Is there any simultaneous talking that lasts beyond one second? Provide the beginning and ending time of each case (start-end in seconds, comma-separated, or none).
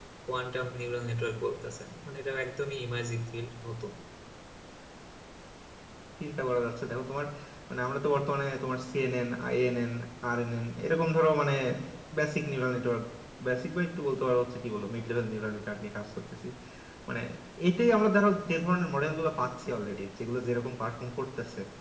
none